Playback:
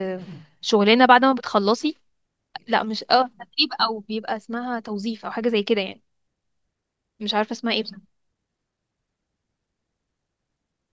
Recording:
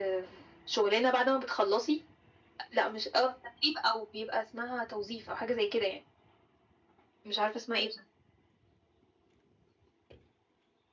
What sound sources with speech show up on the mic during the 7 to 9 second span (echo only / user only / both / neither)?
echo only